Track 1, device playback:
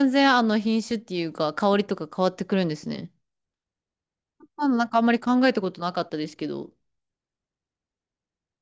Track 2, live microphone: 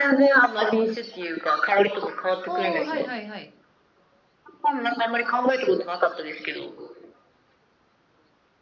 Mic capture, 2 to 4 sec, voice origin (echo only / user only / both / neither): both